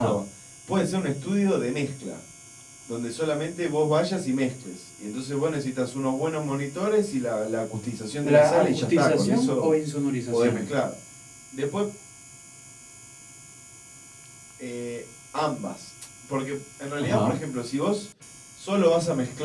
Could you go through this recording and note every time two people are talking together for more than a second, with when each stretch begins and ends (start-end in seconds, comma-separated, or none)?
8.2-9.7